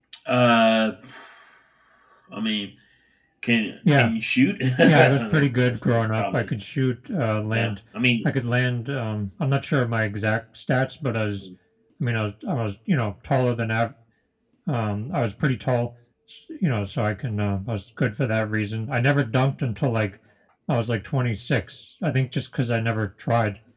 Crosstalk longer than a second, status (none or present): present